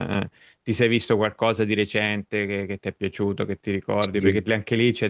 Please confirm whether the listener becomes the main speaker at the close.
No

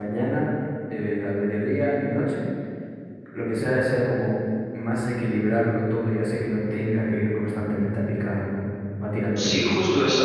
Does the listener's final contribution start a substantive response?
Yes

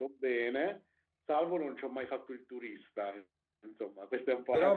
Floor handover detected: Yes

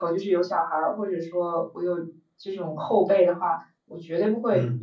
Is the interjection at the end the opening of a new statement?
No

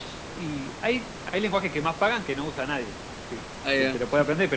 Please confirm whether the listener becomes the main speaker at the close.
No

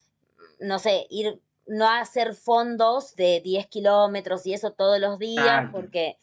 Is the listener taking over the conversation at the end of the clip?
No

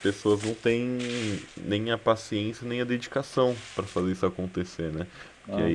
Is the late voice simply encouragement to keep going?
Yes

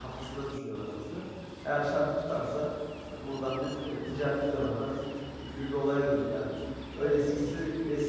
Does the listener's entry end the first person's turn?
No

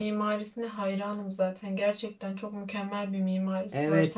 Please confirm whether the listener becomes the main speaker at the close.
Yes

